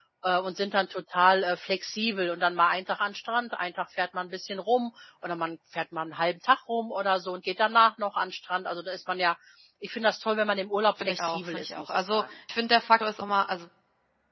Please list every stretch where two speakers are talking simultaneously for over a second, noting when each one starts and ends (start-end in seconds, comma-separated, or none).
11.0-12.2